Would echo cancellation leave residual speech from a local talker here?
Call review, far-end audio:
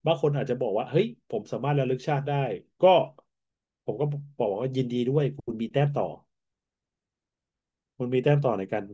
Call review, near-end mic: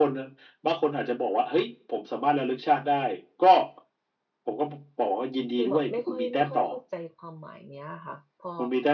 Yes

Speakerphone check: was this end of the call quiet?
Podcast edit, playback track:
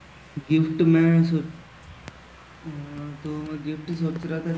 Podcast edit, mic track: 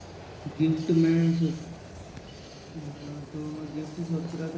Yes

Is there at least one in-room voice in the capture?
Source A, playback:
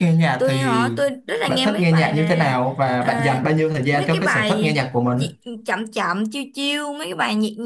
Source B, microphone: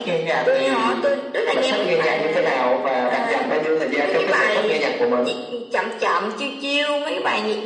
No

